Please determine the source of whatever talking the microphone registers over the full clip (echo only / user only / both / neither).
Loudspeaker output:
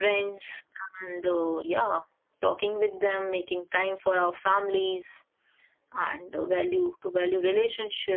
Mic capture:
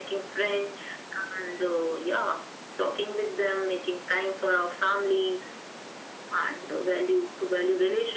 echo only